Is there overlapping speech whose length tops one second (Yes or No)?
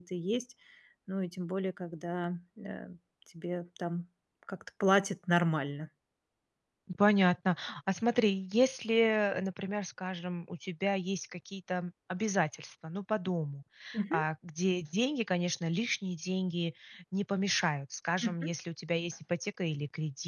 No